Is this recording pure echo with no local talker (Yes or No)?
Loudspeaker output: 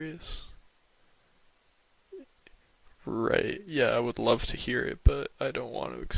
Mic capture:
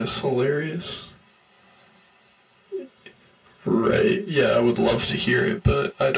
Yes